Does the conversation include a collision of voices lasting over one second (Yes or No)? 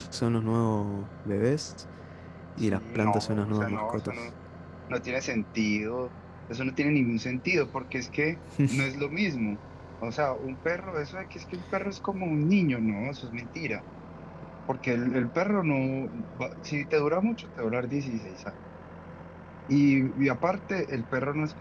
Yes